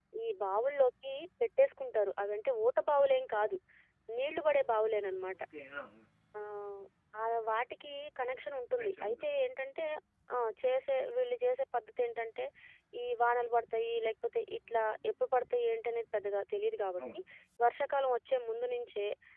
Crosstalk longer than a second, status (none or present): none